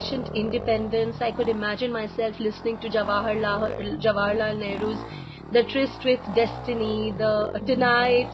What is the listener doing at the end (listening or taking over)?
listening